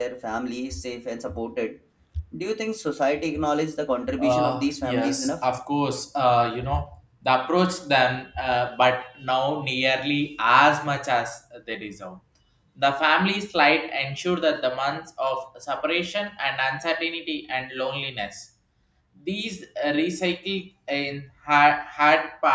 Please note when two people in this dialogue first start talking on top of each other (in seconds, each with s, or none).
4.2 s